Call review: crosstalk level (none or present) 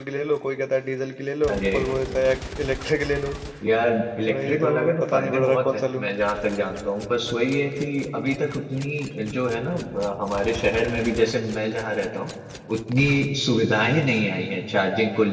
present